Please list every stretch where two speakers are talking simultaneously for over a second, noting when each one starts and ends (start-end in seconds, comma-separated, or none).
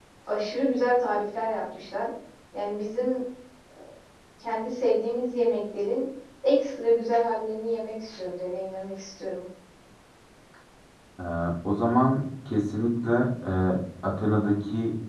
none